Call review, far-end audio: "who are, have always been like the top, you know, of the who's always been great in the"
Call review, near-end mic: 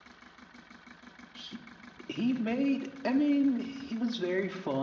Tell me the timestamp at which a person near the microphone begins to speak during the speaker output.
1 s

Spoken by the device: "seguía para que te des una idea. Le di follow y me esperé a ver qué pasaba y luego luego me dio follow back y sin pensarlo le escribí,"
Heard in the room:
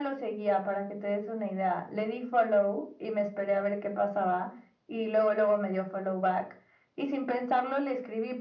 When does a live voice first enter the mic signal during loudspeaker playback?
none

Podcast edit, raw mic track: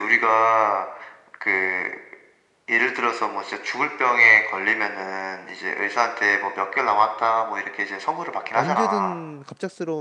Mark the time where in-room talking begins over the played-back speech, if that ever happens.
9 s

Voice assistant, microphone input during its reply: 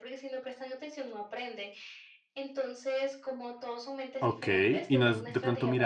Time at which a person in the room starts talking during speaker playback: 4 s

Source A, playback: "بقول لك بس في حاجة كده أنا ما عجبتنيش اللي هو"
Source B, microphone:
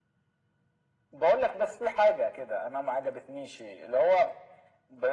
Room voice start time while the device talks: none

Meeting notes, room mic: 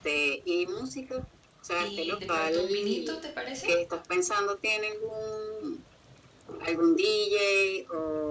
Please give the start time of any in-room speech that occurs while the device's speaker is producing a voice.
2 s

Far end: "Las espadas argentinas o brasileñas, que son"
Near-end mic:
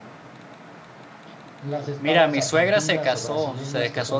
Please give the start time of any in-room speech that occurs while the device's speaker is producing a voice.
2 s

